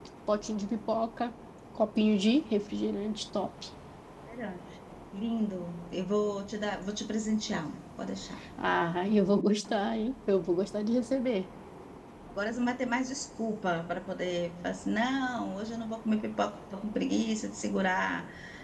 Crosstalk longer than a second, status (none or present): none